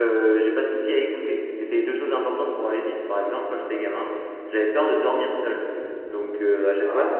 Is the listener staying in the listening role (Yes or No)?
Yes